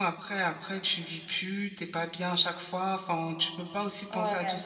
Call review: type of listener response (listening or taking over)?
listening